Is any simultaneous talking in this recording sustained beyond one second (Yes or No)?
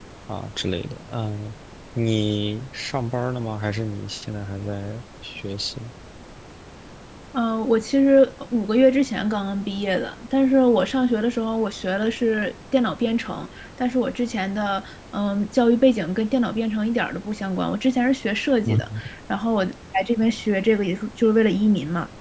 No